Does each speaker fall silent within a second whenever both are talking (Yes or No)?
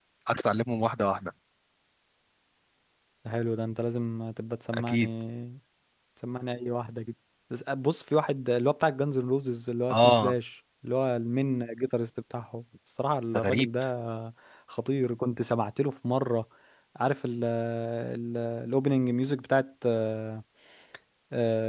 Yes